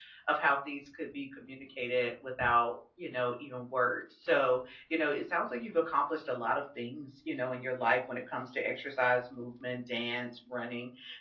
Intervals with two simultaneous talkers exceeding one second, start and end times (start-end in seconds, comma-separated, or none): none